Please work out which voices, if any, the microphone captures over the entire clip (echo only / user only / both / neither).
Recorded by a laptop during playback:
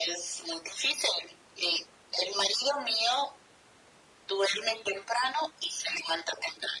echo only